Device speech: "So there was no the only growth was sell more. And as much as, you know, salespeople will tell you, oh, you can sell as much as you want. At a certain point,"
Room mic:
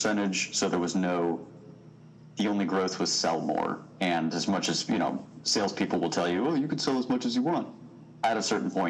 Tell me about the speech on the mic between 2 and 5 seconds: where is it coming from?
echo only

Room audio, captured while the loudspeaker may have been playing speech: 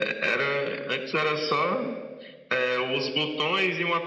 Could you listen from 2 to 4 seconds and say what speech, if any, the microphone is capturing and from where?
echo only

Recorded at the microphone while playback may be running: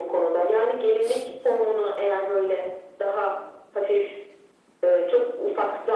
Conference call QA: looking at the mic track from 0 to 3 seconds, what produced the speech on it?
echo only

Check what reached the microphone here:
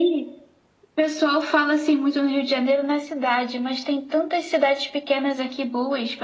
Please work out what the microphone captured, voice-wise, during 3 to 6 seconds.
echo only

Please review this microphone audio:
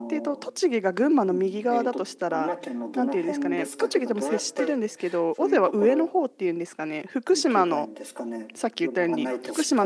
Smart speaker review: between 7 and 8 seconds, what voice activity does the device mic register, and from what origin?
both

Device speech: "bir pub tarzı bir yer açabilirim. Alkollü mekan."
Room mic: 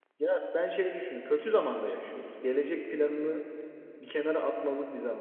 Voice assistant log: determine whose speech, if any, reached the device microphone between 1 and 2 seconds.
user only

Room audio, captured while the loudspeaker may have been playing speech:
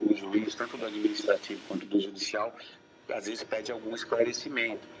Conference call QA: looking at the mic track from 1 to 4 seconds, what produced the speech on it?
echo only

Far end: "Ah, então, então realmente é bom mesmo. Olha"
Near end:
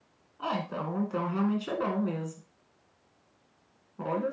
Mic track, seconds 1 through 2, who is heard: echo only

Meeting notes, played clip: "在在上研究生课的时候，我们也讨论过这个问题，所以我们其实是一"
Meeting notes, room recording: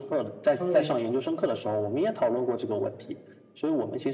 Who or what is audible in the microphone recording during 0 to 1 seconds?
both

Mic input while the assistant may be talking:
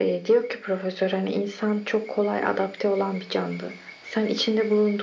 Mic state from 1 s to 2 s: echo only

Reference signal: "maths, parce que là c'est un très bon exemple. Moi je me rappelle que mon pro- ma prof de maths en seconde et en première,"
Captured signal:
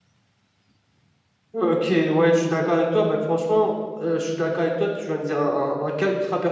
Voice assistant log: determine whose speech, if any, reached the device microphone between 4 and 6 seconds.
user only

